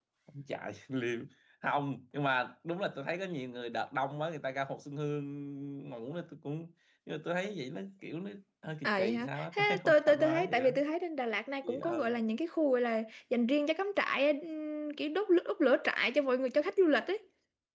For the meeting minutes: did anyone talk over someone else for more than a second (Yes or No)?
Yes